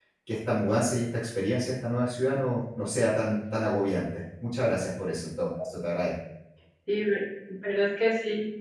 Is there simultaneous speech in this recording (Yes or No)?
No